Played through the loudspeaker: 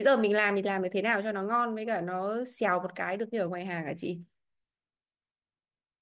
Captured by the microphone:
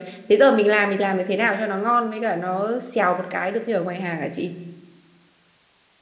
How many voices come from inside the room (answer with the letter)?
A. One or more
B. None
B